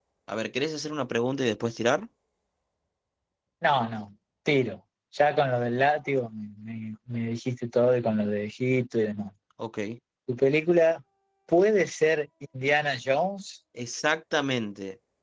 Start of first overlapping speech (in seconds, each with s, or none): none